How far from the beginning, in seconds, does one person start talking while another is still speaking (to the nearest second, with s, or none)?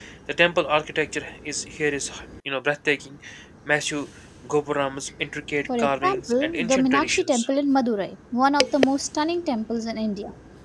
6 s